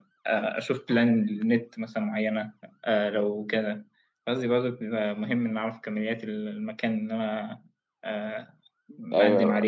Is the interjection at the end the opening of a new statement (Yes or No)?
Yes